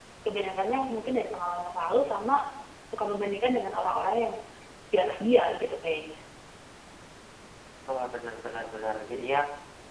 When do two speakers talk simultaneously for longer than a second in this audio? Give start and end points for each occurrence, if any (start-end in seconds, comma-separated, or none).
none